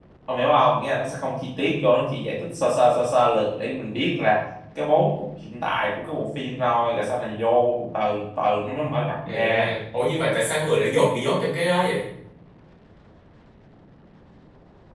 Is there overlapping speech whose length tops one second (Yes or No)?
No